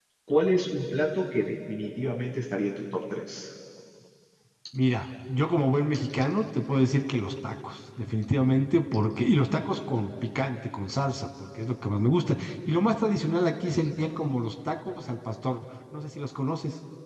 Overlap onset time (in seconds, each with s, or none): none